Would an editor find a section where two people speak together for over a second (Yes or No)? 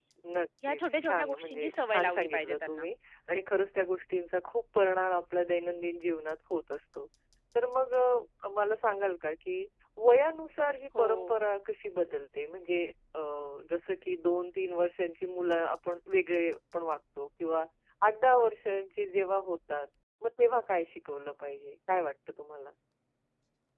Yes